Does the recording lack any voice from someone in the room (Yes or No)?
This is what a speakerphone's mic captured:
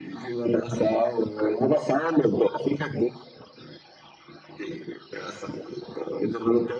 Yes